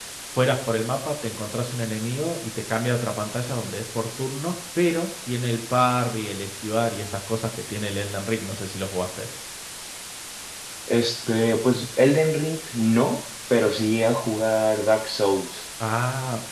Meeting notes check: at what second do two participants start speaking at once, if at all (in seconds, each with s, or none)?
none